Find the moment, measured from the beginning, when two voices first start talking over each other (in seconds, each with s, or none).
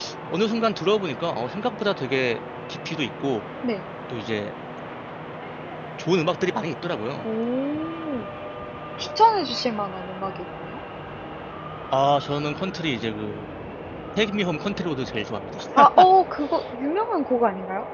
none